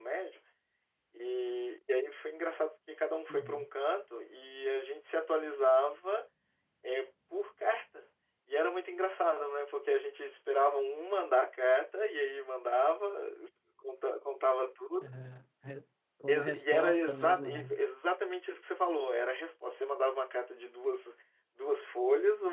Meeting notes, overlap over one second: present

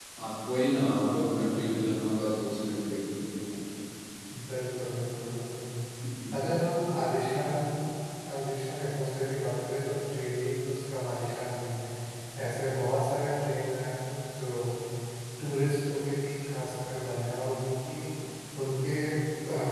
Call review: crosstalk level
none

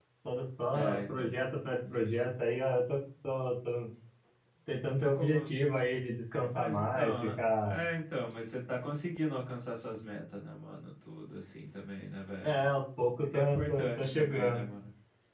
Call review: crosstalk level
present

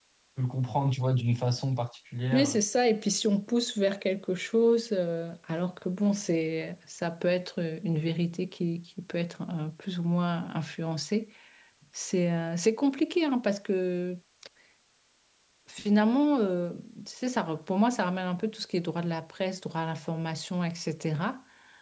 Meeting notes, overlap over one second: none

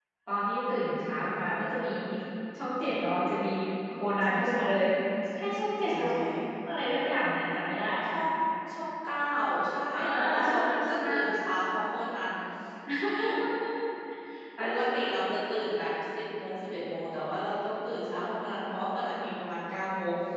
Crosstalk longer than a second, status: present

